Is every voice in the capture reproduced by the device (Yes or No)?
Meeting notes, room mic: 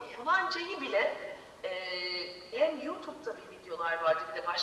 Yes